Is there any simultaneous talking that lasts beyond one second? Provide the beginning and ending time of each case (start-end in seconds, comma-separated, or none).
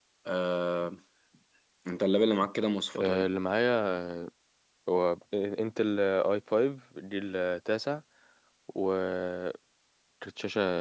none